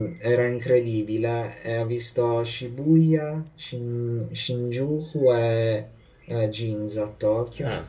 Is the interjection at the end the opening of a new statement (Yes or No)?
No